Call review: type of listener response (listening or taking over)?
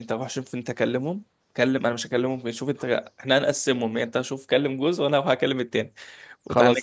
listening